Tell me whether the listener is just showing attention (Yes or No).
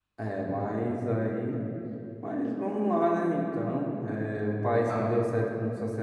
Yes